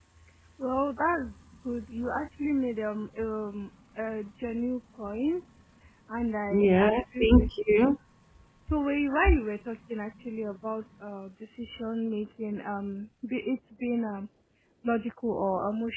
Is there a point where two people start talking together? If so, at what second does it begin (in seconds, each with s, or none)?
6.5 s